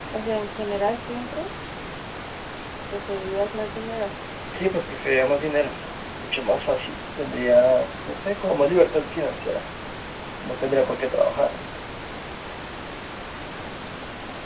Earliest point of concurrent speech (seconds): none

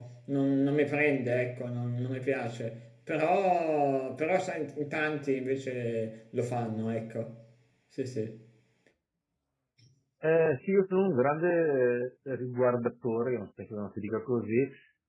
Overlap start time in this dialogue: none

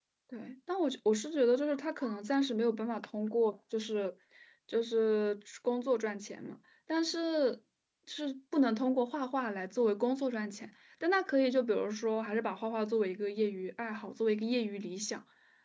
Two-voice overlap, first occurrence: none

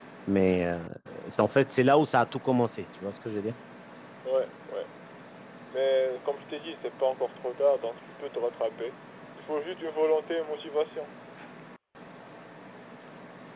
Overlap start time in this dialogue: none

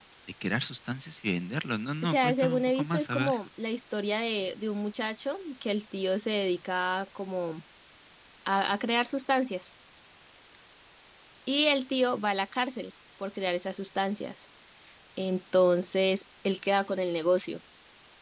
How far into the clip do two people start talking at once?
2.0 s

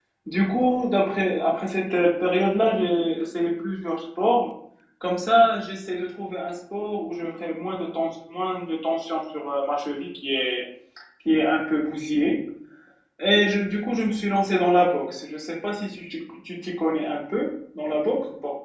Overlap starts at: none

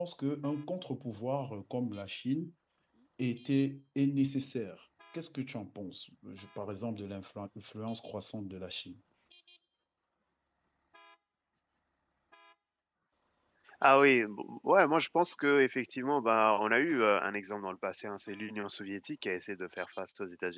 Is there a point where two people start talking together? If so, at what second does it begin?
none

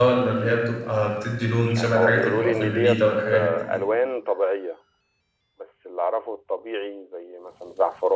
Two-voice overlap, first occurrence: 1.7 s

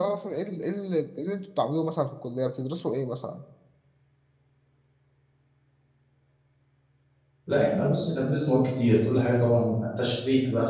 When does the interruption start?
none

